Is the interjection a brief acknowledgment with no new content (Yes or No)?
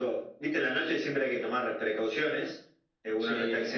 Yes